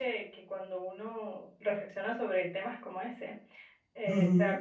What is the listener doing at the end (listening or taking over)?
listening